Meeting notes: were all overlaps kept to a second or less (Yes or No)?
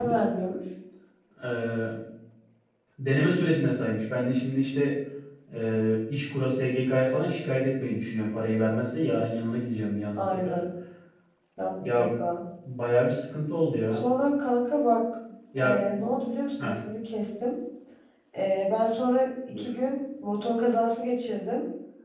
Yes